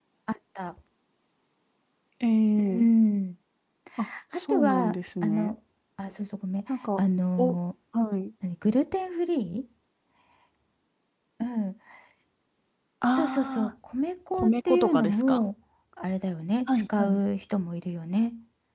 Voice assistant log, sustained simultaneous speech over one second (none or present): present